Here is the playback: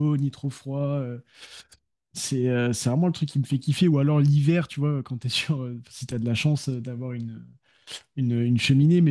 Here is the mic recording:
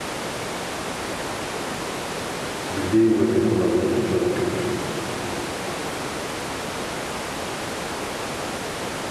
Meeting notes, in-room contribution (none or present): present